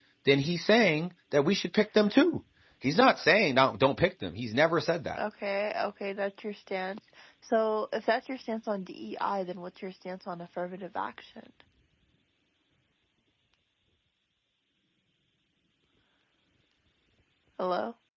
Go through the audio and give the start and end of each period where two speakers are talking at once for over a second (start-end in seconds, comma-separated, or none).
none